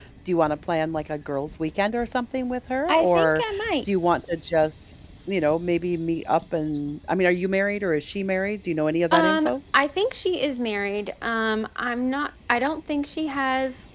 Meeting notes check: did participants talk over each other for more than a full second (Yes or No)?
No